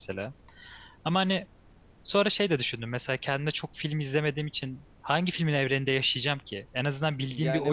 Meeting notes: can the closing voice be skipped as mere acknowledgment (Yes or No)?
No